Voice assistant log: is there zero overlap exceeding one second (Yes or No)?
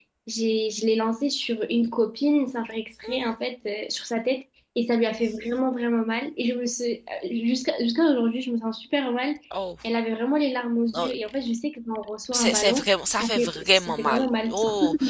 No